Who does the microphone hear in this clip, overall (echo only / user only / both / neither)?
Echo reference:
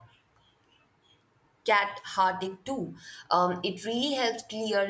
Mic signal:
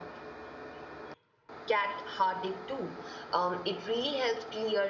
echo only